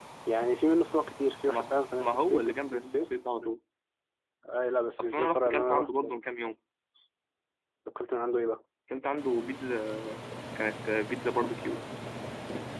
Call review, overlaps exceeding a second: present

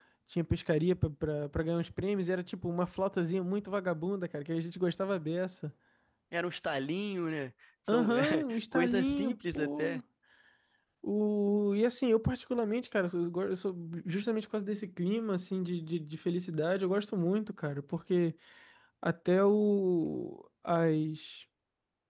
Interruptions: present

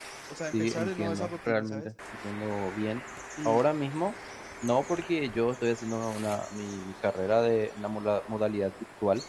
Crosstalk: present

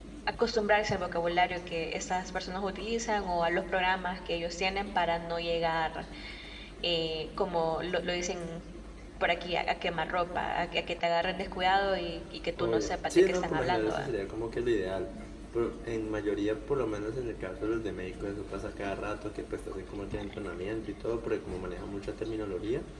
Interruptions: present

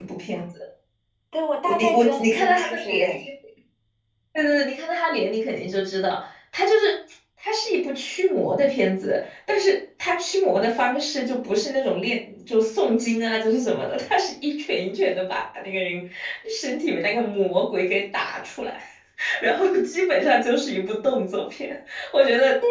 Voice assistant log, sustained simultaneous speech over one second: present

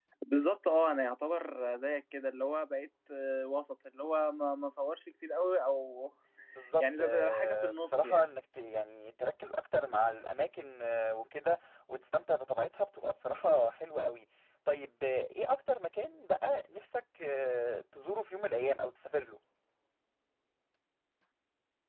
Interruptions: present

